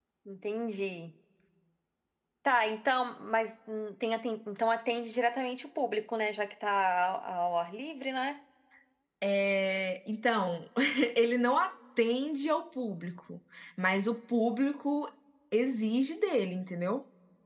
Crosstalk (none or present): none